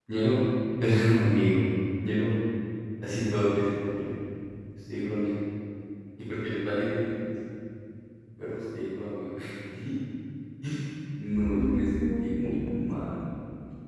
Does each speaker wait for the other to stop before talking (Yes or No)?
No